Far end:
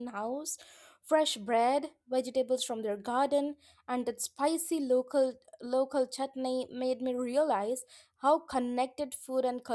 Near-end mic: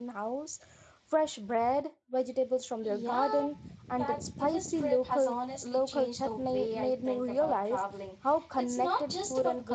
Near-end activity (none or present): present